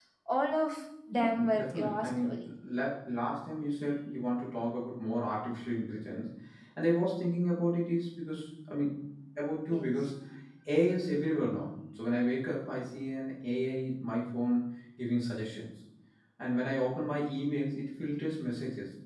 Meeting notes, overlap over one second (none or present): present